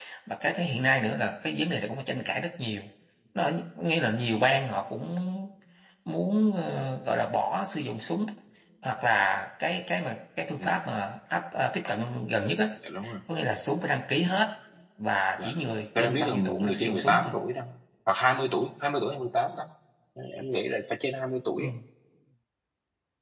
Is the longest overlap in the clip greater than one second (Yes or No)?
Yes